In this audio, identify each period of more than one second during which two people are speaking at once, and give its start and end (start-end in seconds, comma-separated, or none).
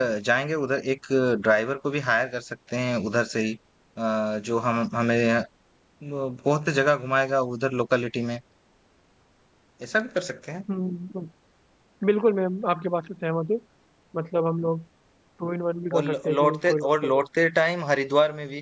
15.9-17.2